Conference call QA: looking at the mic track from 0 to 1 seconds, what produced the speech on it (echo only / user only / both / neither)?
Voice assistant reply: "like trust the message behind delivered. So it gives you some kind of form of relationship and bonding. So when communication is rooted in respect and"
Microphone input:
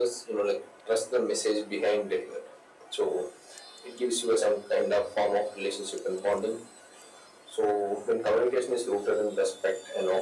echo only